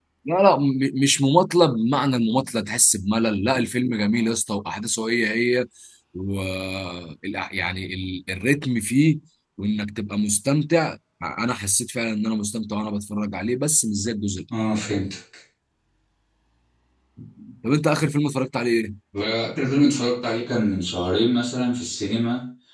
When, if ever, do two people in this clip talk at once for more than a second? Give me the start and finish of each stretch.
none

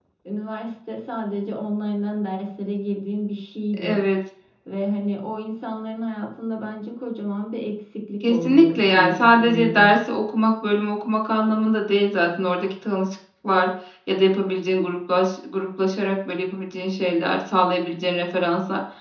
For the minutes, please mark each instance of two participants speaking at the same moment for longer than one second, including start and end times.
8.2-9.9

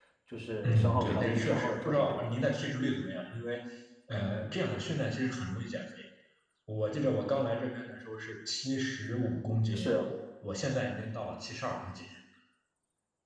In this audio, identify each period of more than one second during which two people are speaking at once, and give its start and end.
0.6-2.3

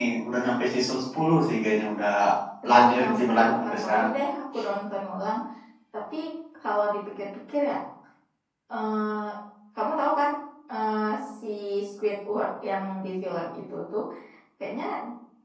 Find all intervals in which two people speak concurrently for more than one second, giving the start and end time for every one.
2.7-4.1

